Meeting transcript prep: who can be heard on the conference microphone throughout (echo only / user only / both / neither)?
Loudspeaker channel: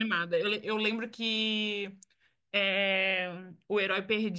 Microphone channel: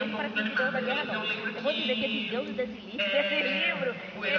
both